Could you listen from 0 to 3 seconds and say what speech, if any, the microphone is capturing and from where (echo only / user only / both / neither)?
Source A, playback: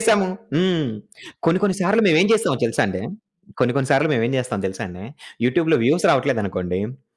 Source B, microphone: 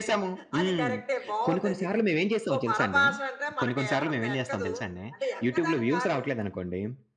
both